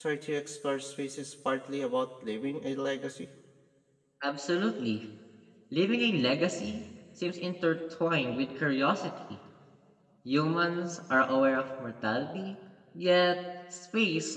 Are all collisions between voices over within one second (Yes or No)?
Yes